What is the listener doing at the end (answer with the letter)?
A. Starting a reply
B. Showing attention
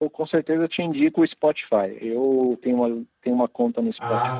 B